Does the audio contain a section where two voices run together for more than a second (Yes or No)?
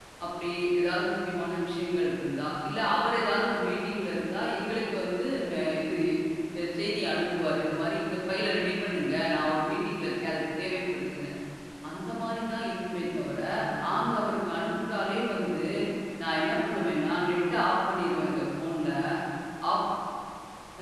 No